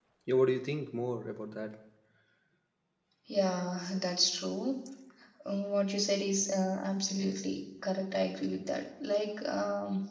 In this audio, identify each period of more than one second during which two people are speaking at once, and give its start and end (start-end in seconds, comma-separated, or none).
none